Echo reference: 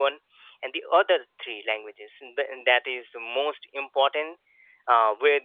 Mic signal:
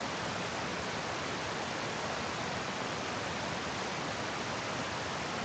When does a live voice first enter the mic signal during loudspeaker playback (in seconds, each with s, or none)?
none